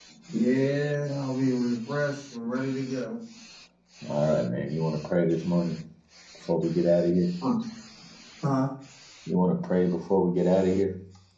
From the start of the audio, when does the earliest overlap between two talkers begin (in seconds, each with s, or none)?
none